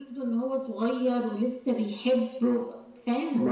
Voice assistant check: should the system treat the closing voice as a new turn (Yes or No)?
Yes